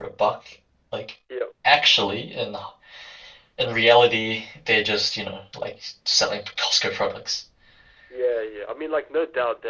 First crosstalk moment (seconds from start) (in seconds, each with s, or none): none